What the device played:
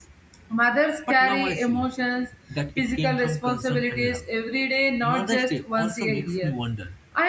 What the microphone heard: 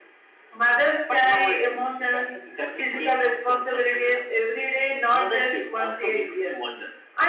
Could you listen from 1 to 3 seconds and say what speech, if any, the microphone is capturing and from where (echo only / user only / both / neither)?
both